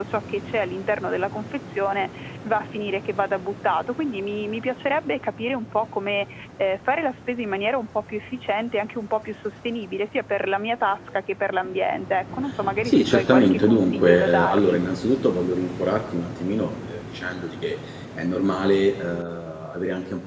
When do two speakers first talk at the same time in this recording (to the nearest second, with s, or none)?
13 s